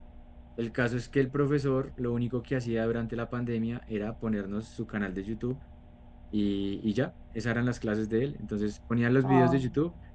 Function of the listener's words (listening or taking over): listening